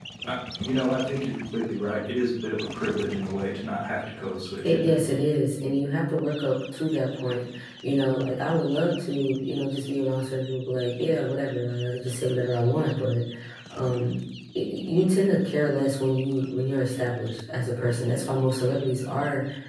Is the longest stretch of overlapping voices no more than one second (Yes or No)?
Yes